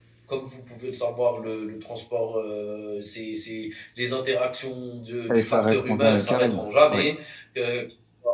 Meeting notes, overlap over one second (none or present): present